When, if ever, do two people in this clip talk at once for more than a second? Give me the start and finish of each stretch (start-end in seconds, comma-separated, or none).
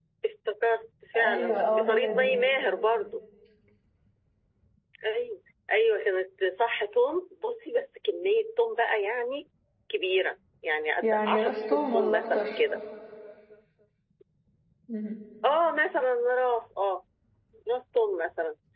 1.2-2.4, 11.0-12.6